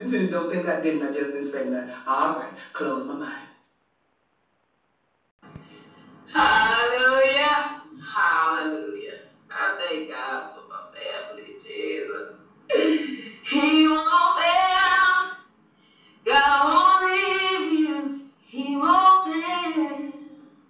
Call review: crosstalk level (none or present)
none